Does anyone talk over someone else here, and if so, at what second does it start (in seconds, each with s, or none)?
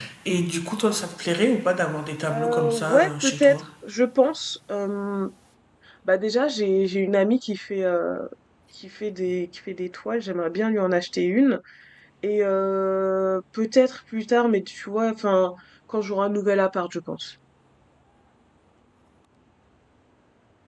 2.3 s